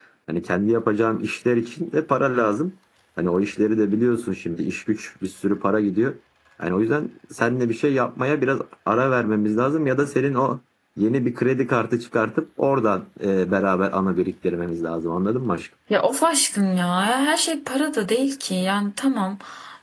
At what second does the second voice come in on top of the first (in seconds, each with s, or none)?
none